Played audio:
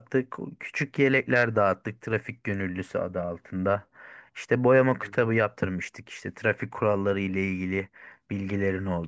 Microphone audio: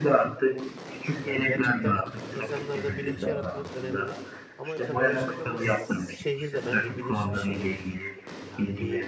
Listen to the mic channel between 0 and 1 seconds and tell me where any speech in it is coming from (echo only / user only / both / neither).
echo only